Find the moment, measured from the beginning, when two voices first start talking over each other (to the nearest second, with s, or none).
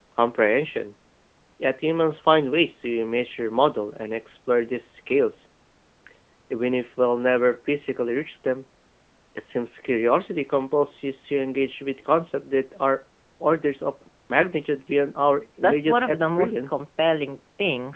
16 s